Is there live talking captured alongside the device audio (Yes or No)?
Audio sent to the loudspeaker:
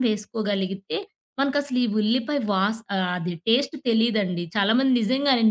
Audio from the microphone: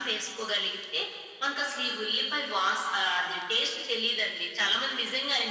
No